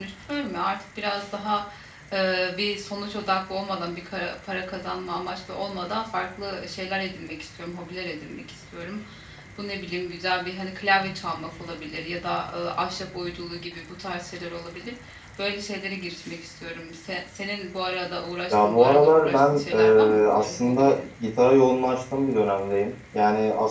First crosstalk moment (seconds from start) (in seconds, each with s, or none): 18.5 s